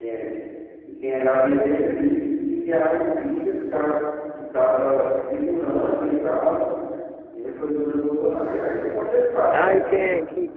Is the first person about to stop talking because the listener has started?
Yes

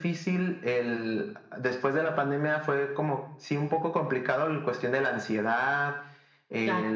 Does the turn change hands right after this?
No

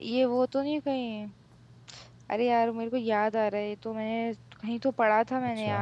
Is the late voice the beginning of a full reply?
Yes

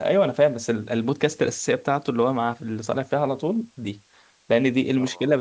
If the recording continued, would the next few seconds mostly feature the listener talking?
No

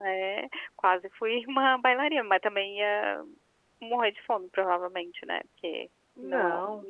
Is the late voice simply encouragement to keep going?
Yes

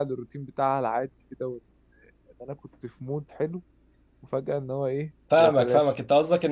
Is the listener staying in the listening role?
No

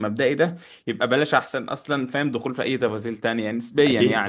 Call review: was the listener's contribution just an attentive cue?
Yes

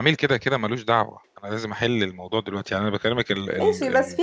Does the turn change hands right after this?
Yes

